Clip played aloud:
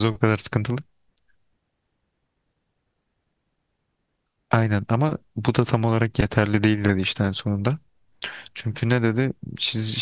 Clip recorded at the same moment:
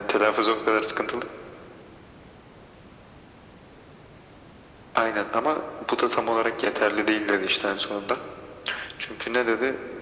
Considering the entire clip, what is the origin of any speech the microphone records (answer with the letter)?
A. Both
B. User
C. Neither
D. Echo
D